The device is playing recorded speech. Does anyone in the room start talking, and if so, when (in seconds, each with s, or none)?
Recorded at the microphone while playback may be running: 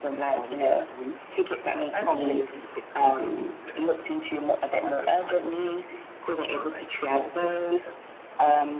none